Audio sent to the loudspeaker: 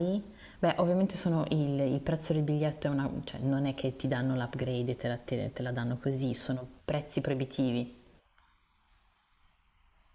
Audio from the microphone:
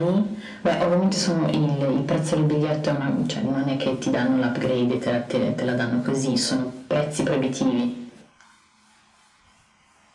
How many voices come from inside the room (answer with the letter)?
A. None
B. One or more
A